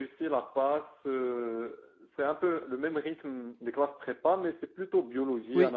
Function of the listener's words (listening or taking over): taking over